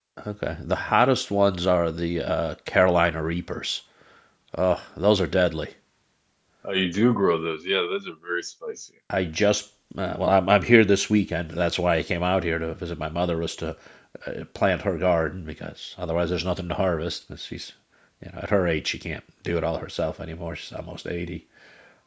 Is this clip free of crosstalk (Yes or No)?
Yes